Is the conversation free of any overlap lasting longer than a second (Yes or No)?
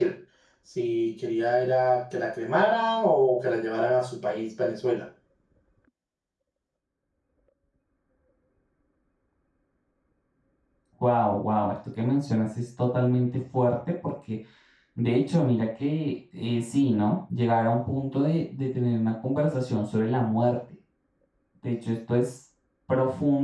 Yes